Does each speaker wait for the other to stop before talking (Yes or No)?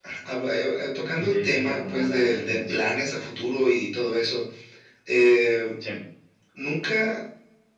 No